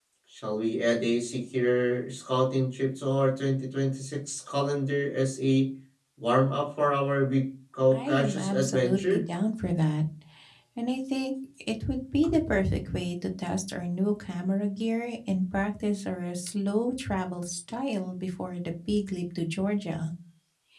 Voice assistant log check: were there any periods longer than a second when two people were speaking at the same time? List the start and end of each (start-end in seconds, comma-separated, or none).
7.9-9.3